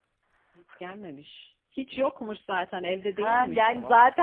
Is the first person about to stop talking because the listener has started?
Yes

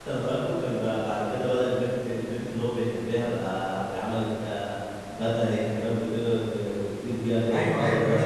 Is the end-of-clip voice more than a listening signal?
Yes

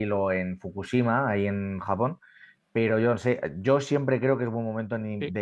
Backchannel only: Yes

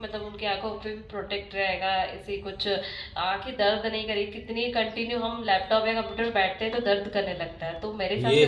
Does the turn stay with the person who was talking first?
No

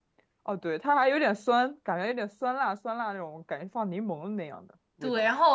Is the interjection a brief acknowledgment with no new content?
No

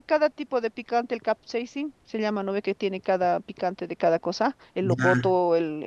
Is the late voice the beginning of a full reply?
No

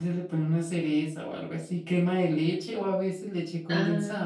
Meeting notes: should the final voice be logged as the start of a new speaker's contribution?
Yes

